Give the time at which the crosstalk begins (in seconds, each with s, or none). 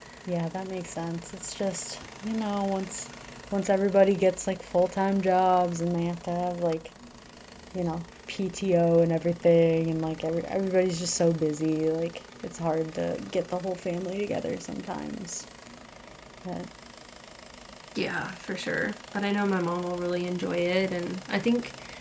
none